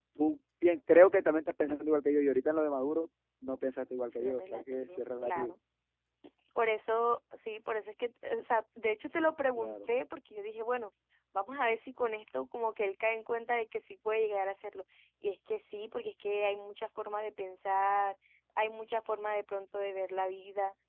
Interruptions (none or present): present